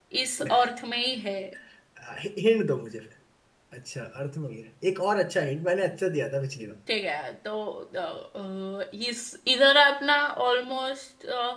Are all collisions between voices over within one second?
Yes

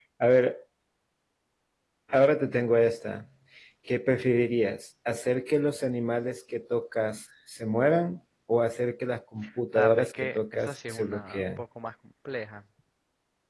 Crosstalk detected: Yes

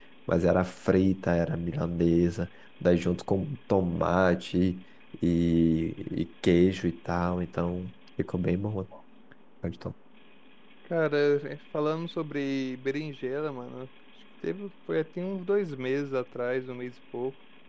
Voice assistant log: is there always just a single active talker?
Yes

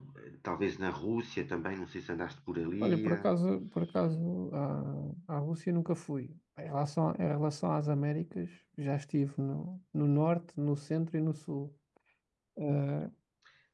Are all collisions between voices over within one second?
Yes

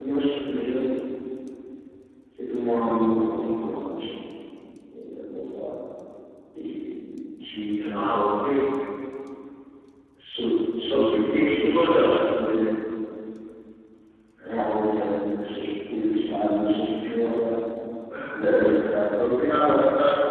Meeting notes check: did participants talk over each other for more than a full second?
Yes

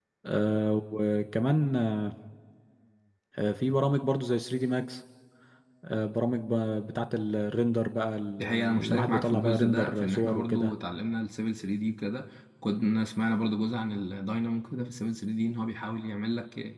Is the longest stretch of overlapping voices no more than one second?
No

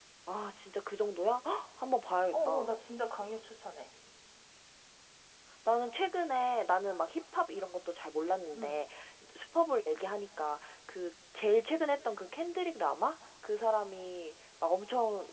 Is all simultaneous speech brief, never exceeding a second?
Yes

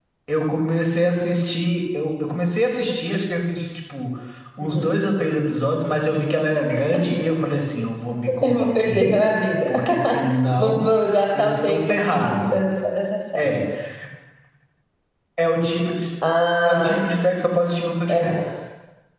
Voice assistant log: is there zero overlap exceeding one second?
No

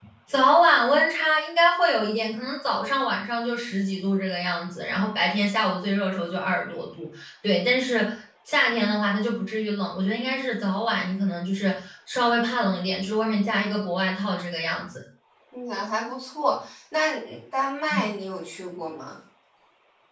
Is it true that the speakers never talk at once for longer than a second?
Yes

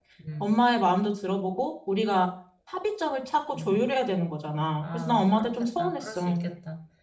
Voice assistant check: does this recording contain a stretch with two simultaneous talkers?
Yes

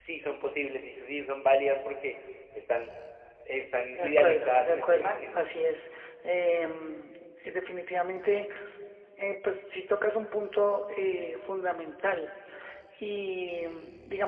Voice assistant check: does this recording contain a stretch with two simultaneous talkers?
Yes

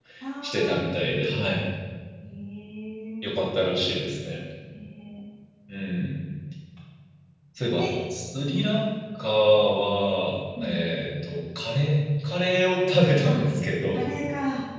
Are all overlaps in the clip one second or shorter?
Yes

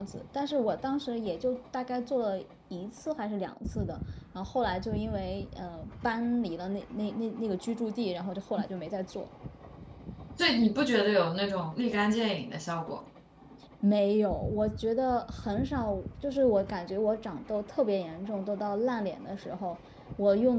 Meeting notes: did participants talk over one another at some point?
No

